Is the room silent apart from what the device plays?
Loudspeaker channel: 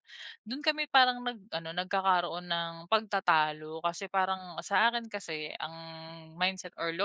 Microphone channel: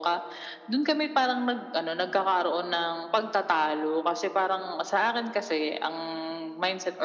Yes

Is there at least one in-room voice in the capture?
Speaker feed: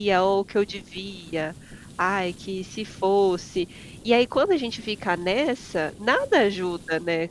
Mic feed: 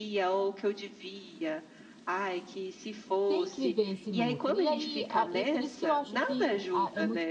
Yes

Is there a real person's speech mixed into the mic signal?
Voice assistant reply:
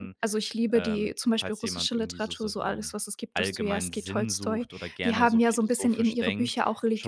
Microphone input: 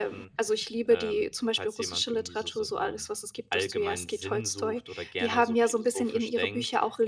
No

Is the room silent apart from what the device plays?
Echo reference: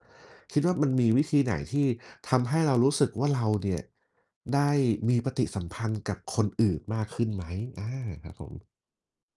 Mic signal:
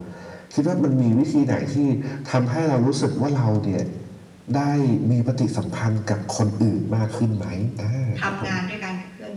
No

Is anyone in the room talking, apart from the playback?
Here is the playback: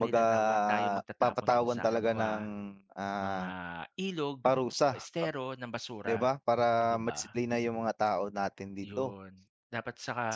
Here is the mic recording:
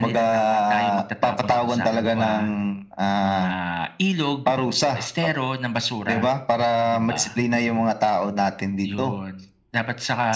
No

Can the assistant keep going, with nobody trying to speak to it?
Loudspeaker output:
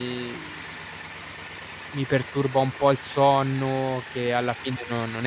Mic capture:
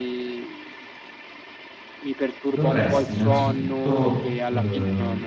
No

